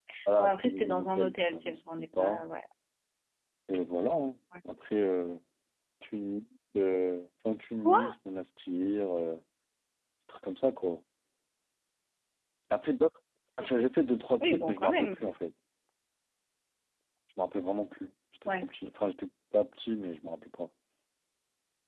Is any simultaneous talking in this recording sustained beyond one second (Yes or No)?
Yes